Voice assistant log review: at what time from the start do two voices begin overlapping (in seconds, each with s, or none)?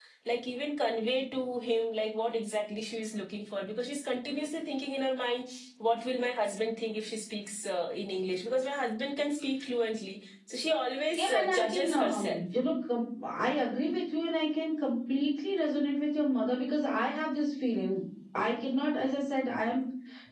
11.2 s